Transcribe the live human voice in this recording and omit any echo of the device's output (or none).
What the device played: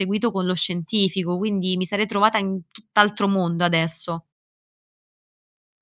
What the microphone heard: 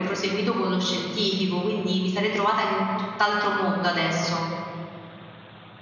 none